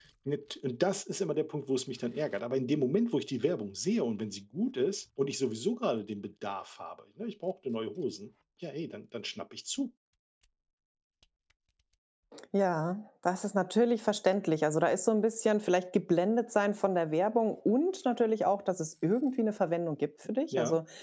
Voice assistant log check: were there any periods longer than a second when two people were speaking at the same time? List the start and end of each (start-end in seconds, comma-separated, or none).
none